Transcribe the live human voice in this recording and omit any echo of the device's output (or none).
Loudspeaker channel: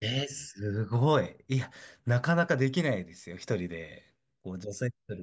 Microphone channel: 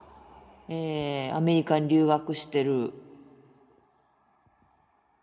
えーアメリカに留学してる。